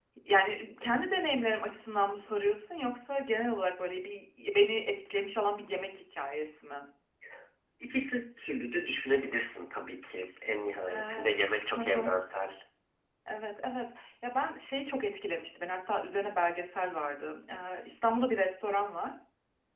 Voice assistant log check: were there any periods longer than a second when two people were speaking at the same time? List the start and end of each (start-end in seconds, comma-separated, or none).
10.9-12.1